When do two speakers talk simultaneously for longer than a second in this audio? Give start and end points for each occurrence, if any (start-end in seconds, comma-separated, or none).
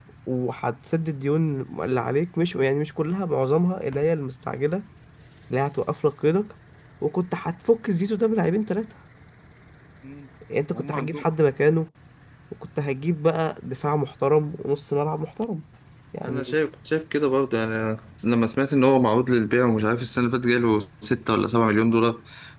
none